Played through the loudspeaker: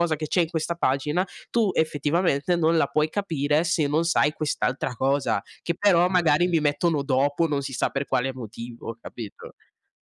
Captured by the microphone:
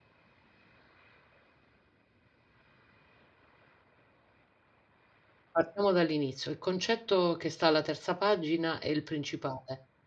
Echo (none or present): none